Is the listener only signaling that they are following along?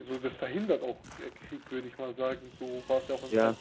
No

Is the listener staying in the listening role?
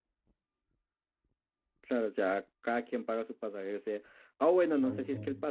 Yes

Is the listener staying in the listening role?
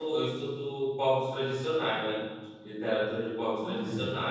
Yes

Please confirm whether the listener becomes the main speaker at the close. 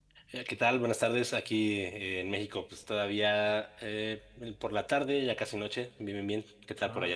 Yes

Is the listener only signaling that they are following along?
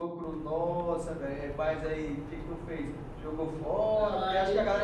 No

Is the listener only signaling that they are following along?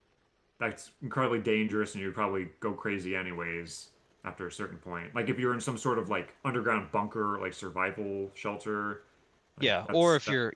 No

